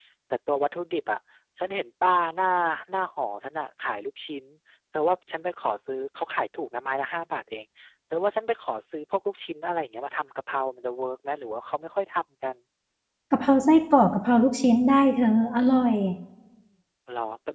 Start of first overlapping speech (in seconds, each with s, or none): none